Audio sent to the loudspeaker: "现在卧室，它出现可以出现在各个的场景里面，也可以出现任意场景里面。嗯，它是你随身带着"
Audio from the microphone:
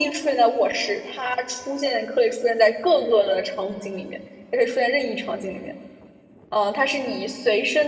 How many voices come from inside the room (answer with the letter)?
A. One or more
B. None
B